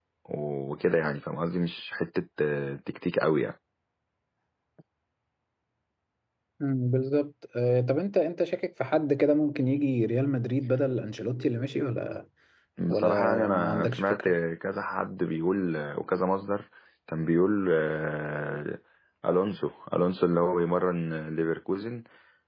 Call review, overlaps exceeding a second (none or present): present